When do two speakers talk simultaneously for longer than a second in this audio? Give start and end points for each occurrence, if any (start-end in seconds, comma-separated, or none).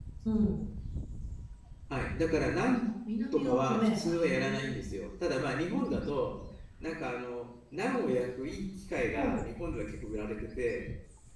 3.3-4.7